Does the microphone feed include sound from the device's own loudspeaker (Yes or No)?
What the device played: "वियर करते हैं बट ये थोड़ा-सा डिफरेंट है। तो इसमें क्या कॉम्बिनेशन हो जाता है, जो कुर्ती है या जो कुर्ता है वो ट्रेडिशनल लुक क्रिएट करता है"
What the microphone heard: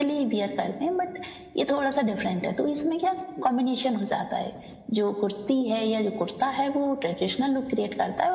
Yes